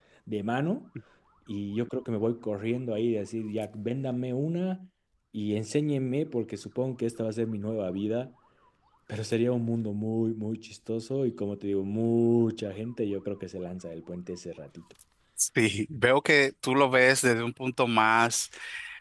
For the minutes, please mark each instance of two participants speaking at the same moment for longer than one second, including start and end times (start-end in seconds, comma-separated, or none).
none